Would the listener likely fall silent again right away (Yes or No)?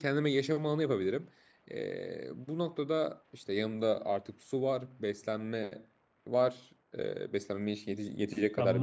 No